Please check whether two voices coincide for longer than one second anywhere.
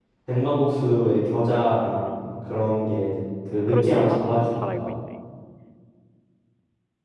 Yes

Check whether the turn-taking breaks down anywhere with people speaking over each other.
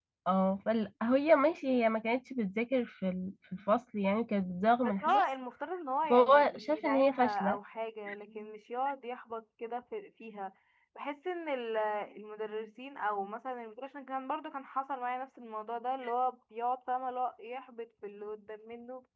Yes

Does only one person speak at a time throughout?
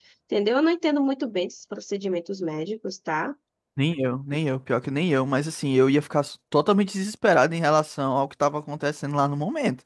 Yes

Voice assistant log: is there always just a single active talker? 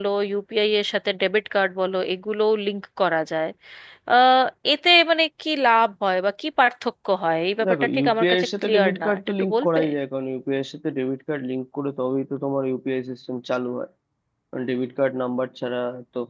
No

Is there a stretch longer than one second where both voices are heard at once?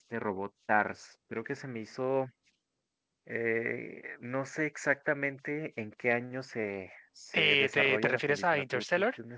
Yes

